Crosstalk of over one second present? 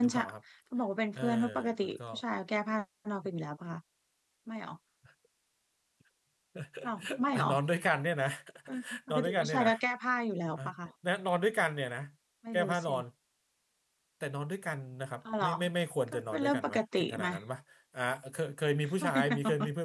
Yes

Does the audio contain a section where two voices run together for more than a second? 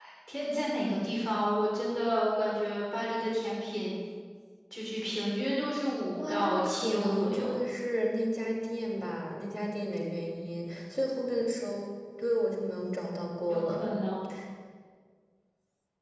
Yes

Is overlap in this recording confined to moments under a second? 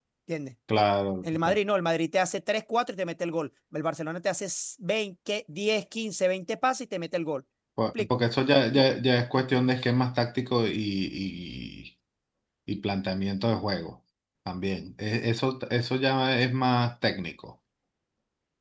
Yes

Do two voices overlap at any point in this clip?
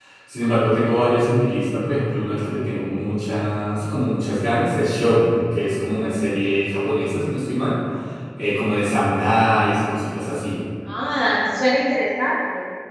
No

